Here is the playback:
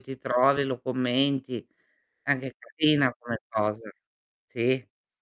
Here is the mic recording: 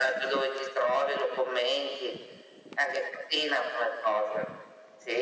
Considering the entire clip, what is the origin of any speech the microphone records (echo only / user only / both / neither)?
echo only